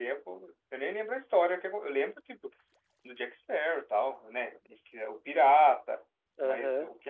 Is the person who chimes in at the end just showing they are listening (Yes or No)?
Yes